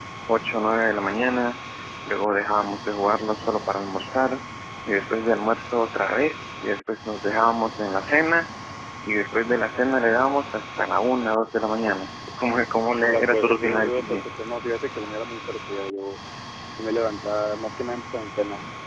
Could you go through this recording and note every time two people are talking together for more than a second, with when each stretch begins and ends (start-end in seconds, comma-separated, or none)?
13.0-14.2